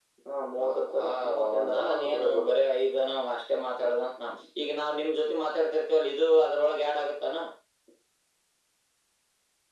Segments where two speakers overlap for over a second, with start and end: 0.6-2.6

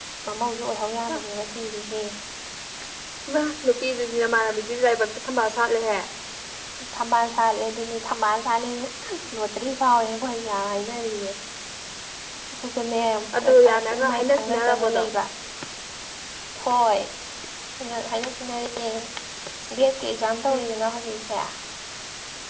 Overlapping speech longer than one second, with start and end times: 13.4-15.0

